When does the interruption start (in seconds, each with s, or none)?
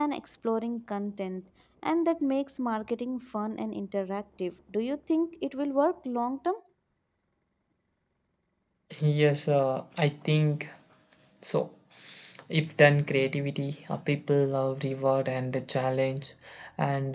none